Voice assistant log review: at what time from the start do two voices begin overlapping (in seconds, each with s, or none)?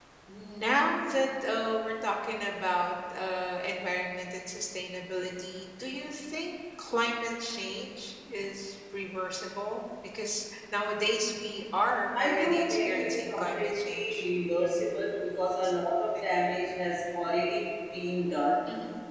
12.2 s